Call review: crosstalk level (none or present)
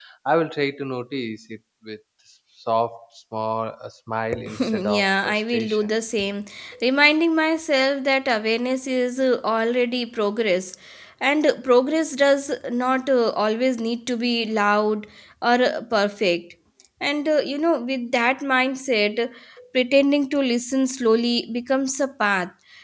present